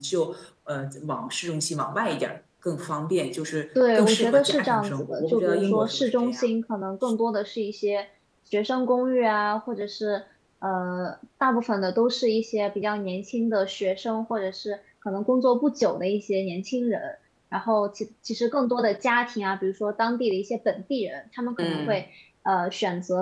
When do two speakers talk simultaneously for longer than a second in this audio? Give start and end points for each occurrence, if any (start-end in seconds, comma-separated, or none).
3.8-6.5